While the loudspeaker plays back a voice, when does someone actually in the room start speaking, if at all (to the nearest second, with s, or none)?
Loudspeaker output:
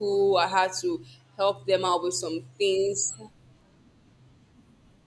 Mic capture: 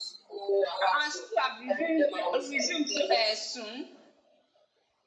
1 s